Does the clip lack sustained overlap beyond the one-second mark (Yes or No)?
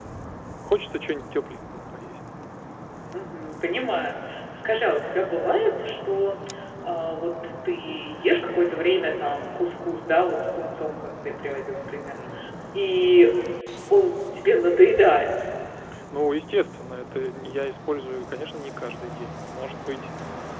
Yes